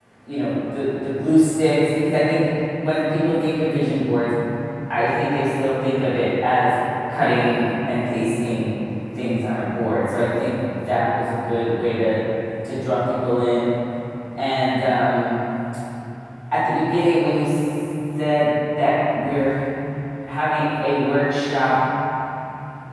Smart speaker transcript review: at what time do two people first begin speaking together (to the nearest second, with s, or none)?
none